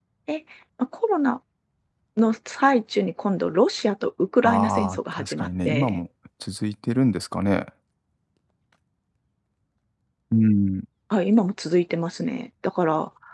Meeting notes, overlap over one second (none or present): present